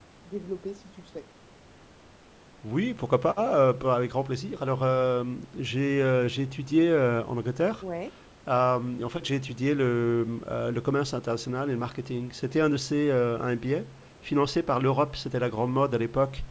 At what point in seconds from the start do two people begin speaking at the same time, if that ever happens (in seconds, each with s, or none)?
none